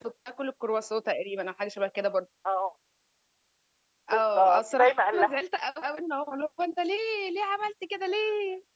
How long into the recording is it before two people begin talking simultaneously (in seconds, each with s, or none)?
4.1 s